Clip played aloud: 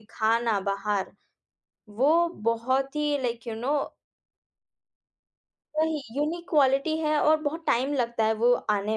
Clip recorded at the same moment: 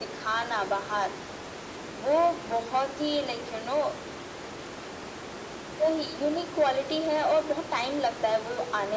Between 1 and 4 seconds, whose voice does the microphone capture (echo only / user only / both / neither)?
echo only